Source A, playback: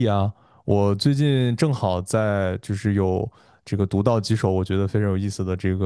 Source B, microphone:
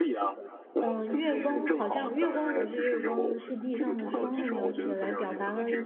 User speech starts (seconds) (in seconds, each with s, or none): 0.8 s